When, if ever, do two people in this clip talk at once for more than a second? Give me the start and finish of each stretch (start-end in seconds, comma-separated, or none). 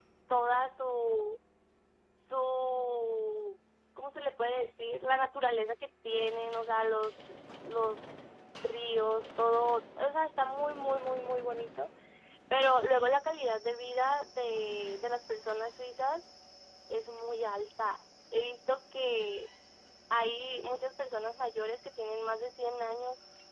none